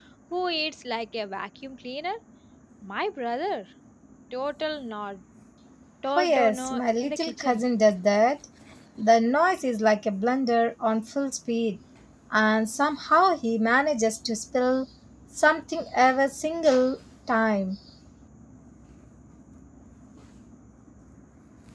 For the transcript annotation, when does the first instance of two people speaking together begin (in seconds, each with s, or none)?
6.2 s